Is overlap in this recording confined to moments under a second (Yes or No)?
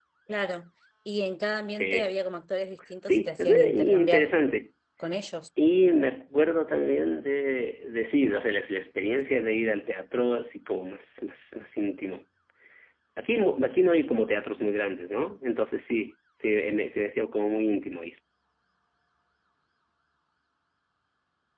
No